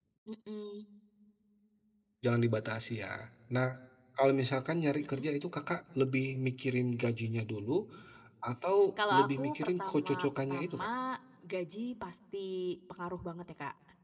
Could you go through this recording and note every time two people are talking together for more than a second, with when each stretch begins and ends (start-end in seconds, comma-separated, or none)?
9.2-10.9